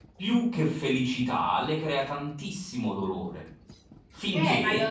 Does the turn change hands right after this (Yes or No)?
Yes